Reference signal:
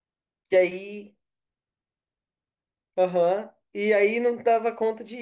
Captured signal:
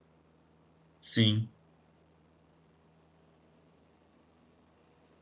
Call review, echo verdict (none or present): none